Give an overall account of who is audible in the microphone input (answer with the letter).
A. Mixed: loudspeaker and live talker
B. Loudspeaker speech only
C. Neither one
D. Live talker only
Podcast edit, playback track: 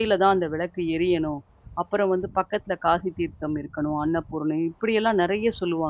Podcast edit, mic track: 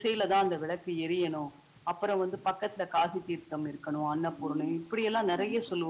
A